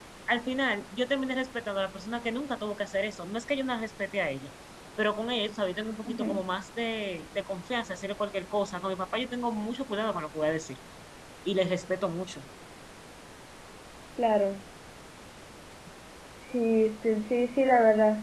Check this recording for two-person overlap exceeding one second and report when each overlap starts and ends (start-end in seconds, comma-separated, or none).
none